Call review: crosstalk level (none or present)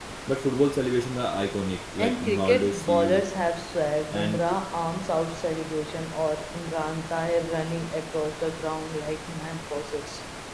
present